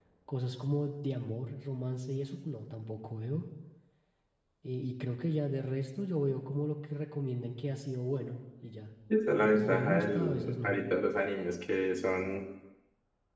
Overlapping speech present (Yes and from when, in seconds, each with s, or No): Yes, from 9.4 s